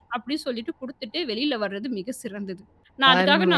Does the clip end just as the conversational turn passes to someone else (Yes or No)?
No